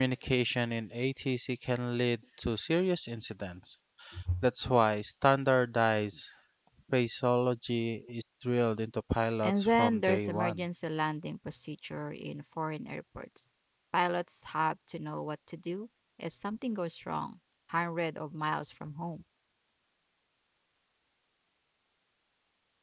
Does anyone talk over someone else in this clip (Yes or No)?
Yes